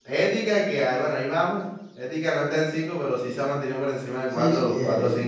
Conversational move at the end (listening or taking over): taking over